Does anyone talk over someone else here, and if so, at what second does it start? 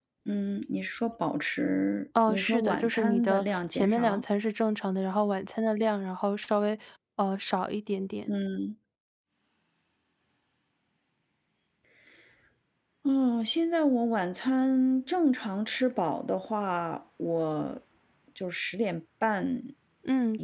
2.1 s

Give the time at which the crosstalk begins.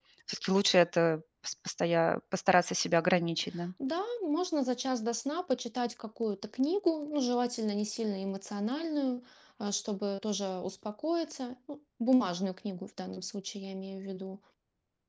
none

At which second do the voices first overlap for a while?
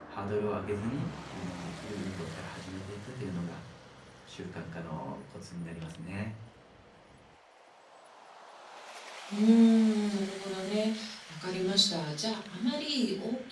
none

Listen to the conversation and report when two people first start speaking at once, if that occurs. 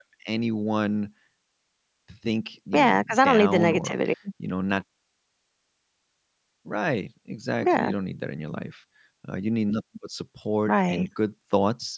2.7 s

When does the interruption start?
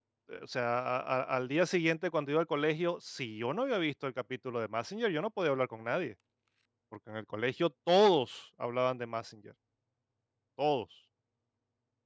none

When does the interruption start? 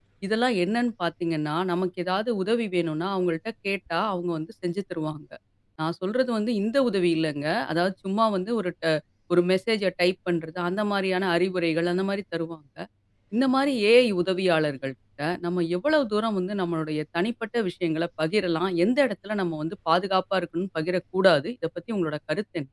none

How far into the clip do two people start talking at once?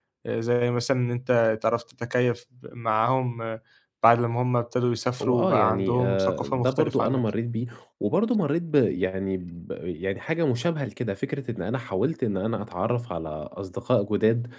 5.2 s

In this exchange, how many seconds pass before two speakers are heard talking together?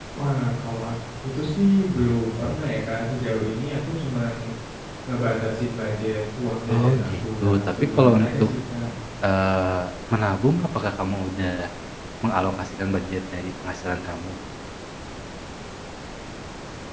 6.7 s

